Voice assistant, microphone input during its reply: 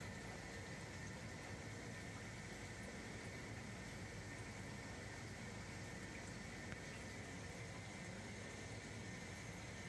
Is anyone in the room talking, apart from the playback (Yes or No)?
No